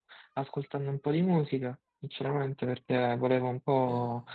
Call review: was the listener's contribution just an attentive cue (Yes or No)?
Yes